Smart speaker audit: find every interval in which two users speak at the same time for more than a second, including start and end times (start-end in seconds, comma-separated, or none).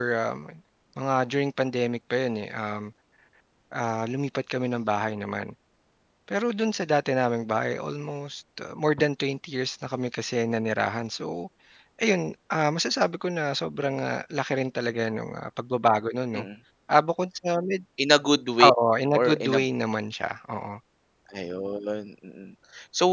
none